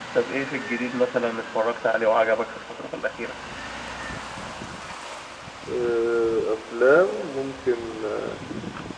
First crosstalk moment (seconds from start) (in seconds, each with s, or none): none